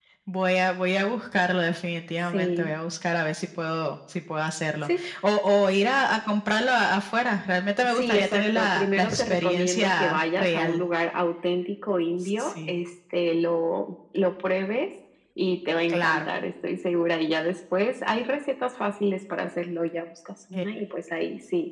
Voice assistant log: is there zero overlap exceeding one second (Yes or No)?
No